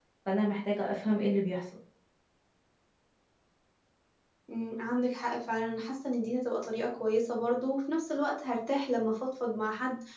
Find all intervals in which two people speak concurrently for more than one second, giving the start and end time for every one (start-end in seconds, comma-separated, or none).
none